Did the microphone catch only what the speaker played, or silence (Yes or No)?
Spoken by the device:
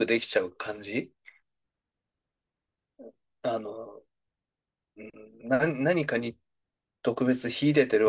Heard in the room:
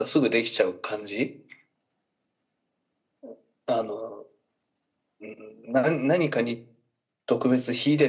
Yes